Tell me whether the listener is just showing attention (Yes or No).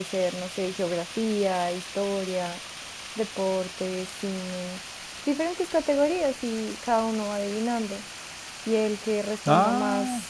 Yes